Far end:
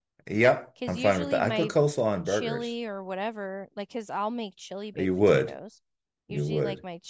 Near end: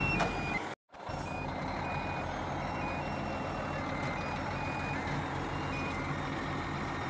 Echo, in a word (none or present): none